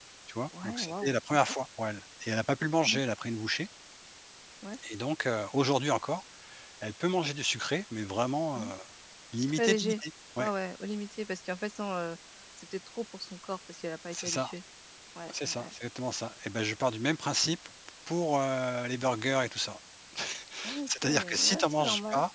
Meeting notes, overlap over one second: present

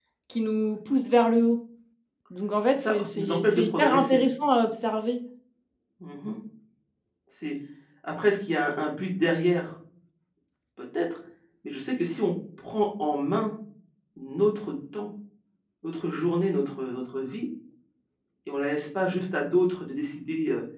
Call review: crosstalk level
present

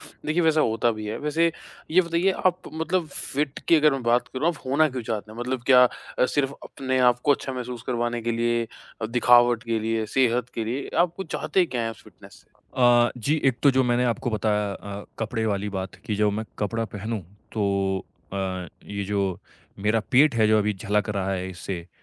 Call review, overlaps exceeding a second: none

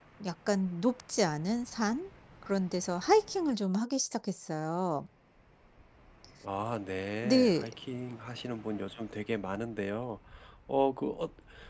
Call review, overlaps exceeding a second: none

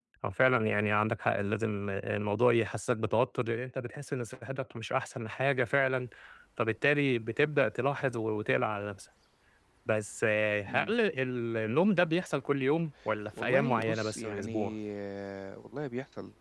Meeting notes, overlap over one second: present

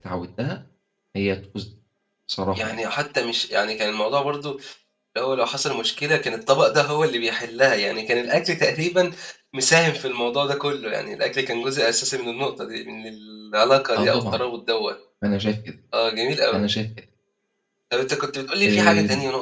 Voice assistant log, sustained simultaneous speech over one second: none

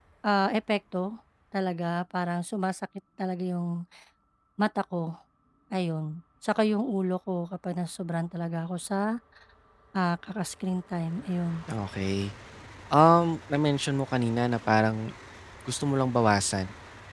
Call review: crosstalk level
none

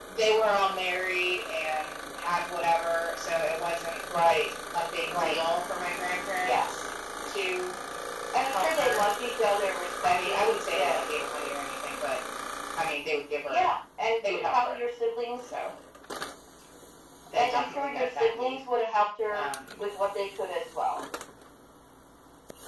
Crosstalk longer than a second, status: present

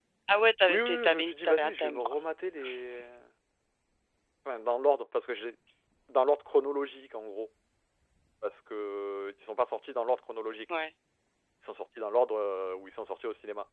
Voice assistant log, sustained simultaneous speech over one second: present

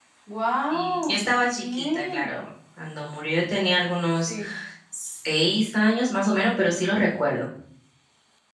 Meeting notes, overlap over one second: present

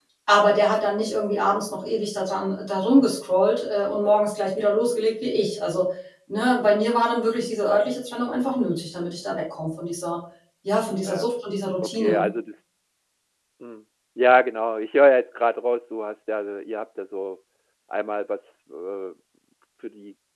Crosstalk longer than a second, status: none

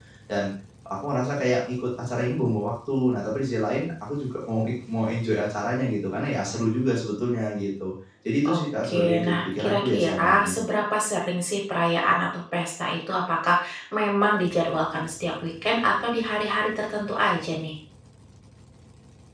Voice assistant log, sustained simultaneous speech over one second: present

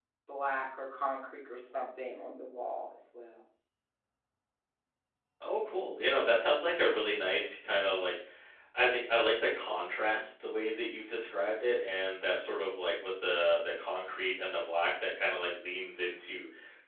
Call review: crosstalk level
none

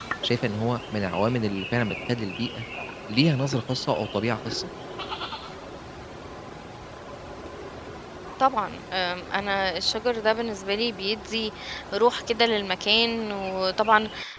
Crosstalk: none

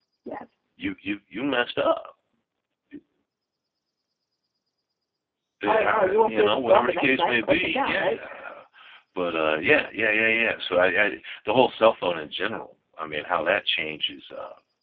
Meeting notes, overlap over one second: present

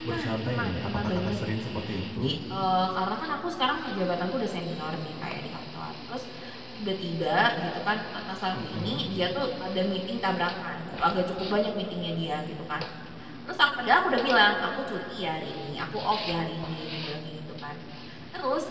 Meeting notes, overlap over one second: present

